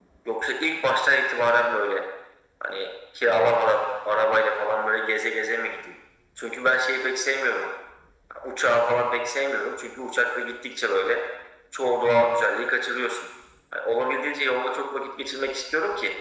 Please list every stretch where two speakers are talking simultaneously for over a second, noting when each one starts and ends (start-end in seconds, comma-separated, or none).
none